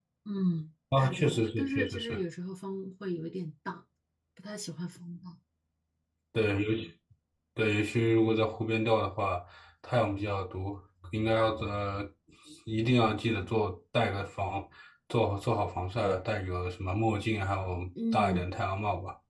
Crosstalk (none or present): present